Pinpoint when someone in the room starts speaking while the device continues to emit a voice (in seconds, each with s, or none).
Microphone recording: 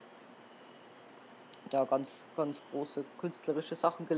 1.6 s